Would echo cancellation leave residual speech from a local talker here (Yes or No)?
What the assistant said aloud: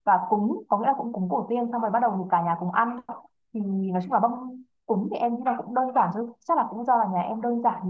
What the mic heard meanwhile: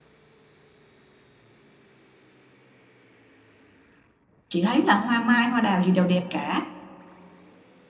Yes